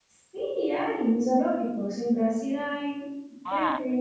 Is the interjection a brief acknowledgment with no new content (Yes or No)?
No